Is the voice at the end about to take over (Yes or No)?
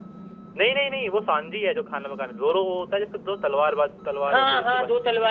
Yes